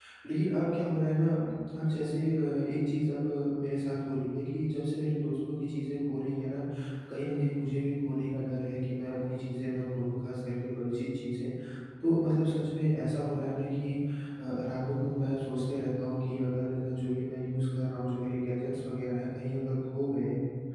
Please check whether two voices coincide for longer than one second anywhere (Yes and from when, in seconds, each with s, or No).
No